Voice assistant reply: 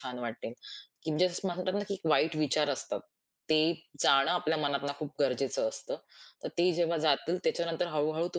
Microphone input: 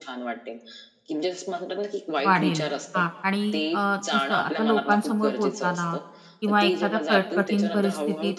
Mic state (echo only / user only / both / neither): both